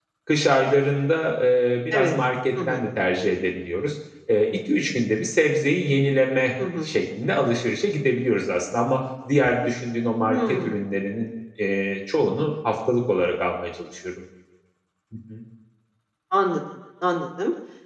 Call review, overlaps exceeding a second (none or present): none